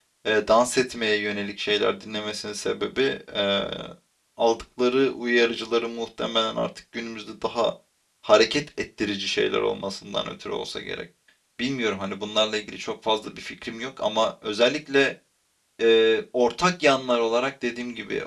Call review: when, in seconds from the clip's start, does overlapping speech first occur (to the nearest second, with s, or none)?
none